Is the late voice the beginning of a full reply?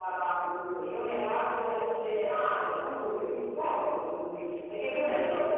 No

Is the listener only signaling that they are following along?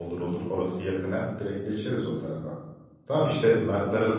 Yes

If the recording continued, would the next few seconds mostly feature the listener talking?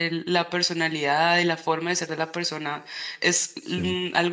No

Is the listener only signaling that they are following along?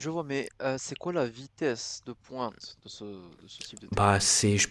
No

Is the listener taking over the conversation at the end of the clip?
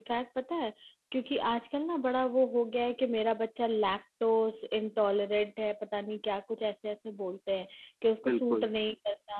No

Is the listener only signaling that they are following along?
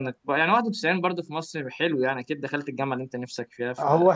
No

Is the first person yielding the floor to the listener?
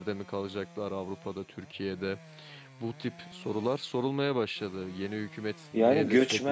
Yes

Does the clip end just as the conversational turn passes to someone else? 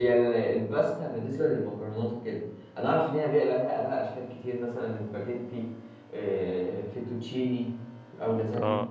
No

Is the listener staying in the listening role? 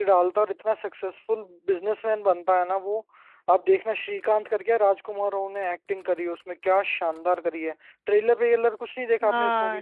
No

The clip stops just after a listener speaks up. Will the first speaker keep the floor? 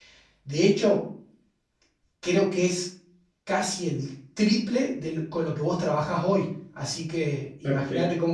No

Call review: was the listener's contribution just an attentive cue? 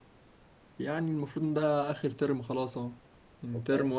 Yes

